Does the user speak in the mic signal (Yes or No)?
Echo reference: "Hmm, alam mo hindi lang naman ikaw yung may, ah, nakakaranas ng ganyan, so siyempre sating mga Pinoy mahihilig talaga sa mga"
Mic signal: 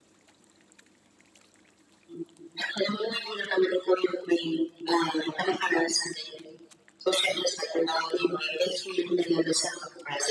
No